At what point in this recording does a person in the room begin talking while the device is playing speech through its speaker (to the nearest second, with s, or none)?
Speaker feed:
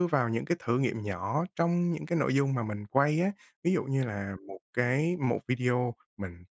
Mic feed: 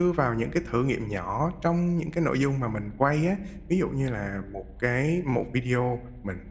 none